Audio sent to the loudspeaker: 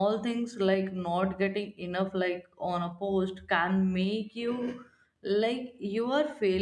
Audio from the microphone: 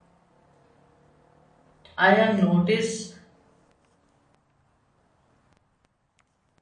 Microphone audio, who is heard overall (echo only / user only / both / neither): user only